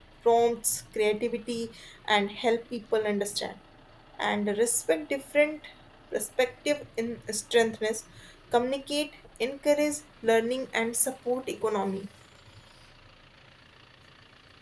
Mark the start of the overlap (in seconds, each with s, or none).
none